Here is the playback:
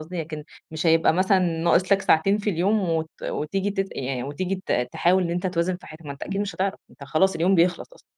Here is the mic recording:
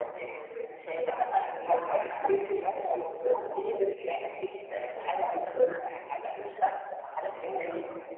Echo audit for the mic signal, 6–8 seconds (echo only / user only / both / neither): echo only